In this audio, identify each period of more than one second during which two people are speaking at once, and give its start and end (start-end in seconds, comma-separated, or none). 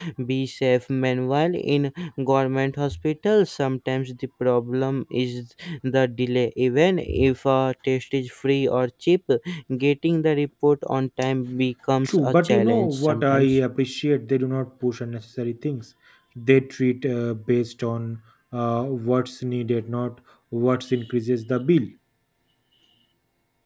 12.0-13.5